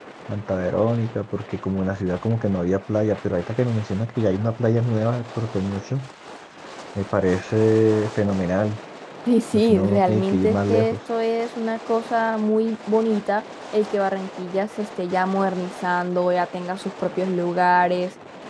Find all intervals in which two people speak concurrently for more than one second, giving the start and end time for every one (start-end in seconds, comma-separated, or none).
9.5-11.0